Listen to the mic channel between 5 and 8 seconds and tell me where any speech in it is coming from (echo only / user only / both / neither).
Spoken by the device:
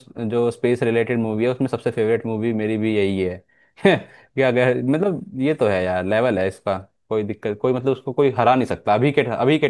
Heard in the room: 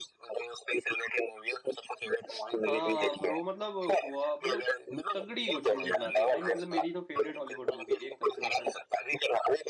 both